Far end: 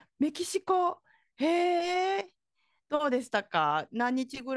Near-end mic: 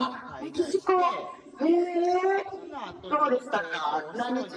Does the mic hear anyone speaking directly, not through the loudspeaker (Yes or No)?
Yes